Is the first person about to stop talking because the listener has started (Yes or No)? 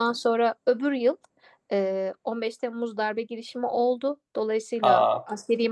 No